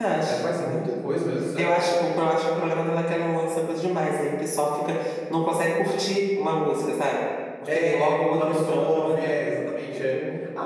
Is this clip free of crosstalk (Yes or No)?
No